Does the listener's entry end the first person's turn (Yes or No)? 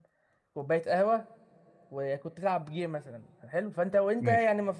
No